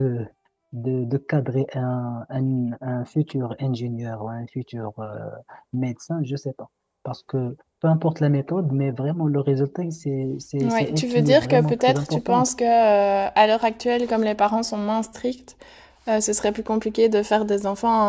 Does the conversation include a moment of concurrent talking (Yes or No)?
Yes